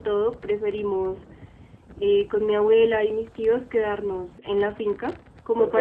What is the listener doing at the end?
listening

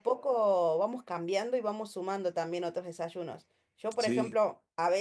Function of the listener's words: listening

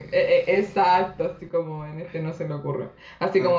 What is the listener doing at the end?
listening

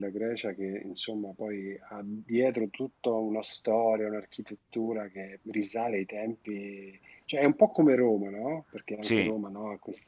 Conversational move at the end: listening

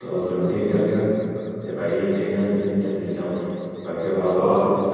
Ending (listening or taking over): listening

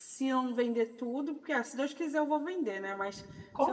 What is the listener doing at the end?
listening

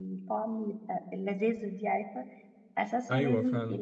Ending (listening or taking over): listening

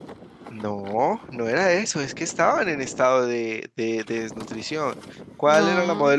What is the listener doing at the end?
listening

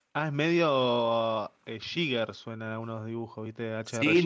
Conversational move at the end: taking over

